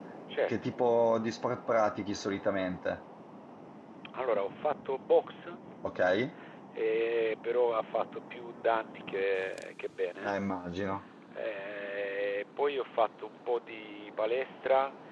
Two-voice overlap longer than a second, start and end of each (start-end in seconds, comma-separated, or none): none